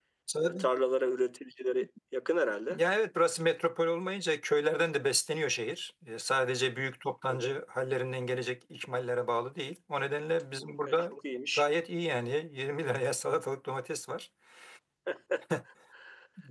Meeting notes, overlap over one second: none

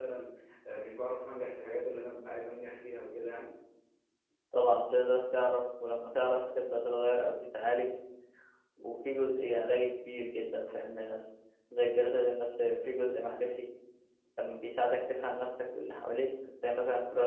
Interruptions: none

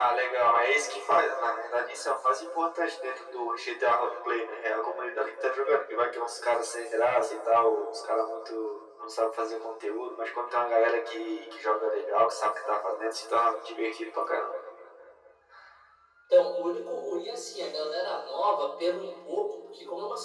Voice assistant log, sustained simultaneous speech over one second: none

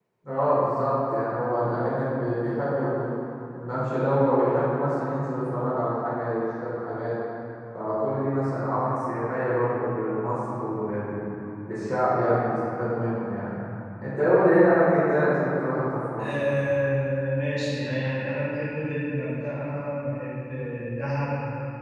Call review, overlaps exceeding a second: none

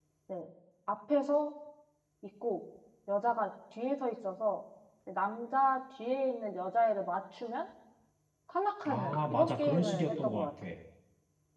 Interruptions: present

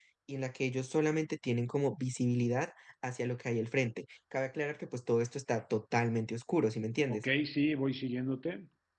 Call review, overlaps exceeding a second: none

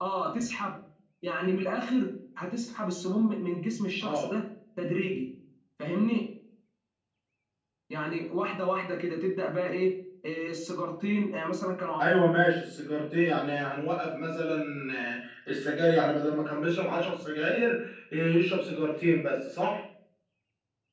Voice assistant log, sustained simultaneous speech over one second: none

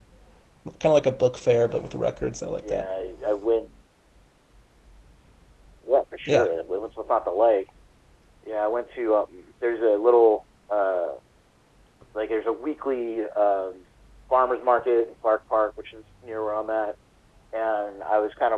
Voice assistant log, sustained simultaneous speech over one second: none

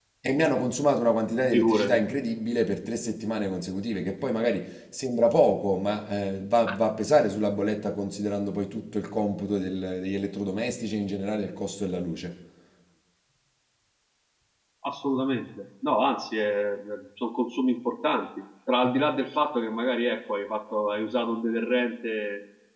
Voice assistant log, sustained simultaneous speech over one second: none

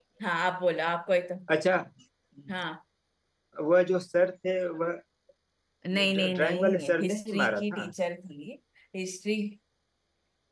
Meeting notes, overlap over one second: present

